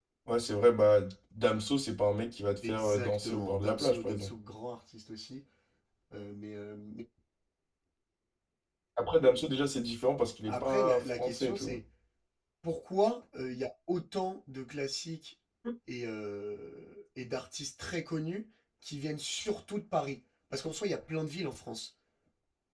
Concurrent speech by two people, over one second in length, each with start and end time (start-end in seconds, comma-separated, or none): 2.7-4.3, 10.5-11.8